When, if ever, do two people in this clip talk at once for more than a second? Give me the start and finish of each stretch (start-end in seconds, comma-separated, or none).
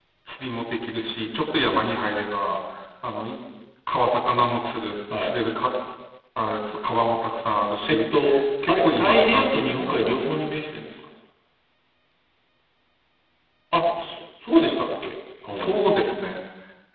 8.7-10.4